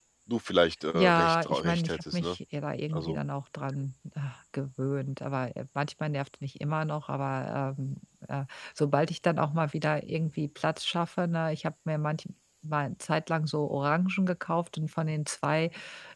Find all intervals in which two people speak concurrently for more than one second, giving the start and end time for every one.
0.9-2.4

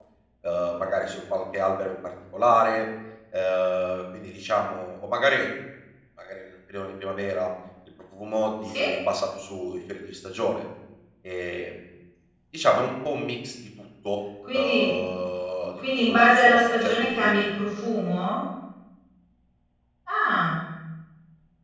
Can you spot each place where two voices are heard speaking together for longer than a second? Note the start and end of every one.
15.8-17.3

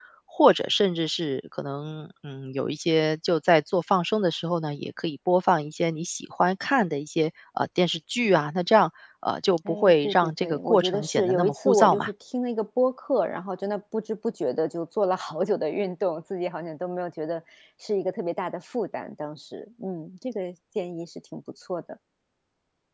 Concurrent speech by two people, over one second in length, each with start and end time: 9.7-12.1

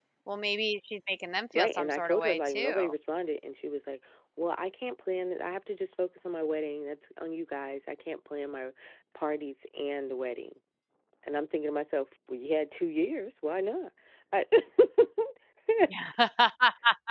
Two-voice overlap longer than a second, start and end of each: 1.6-2.9

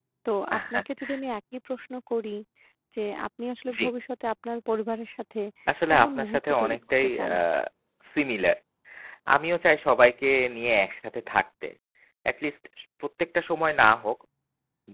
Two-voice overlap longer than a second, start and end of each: 5.9-7.3

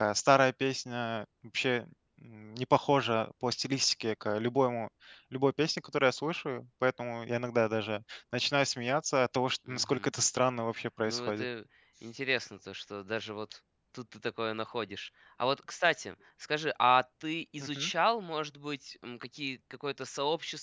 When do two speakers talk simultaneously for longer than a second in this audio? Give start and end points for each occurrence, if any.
none

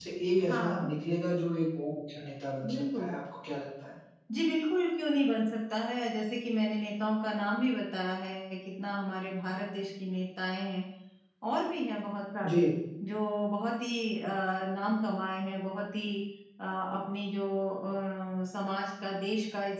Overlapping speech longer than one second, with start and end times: none

